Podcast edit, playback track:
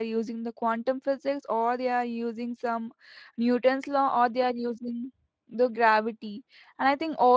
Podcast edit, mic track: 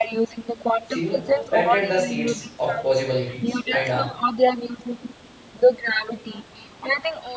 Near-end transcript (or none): cinema planted the seeds of possibilities and uh,